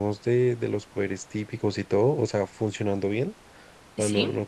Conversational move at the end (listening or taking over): listening